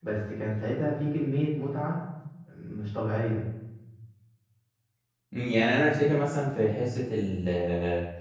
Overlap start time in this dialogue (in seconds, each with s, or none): none